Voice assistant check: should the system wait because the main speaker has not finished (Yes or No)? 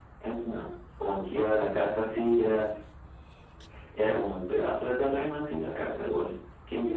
No